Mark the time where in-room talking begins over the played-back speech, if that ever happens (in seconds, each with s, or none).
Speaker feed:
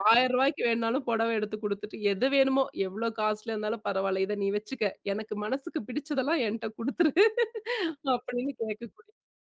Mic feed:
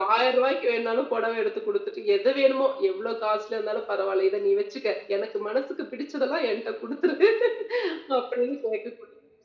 none